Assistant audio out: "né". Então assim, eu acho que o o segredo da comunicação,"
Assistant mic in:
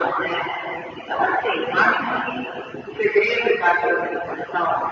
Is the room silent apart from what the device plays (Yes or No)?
Yes